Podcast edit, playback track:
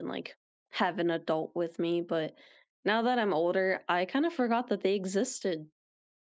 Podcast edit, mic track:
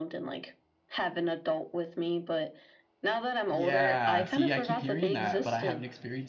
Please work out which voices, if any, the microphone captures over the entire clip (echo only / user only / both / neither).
both